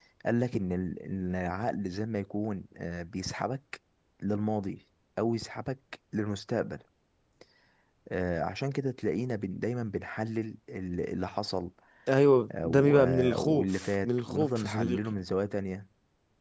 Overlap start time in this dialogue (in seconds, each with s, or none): 12.6 s